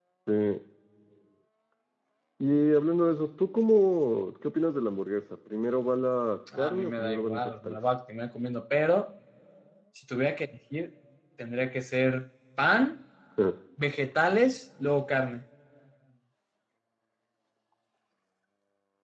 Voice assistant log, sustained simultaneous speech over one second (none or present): present